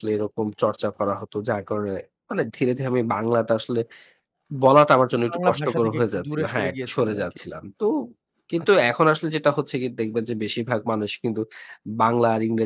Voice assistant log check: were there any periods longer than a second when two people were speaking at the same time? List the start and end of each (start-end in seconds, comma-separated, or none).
5.3-7.3